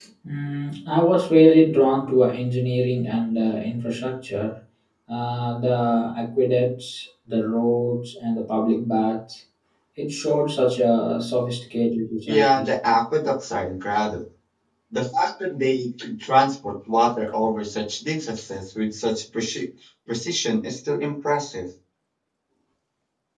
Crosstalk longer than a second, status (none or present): none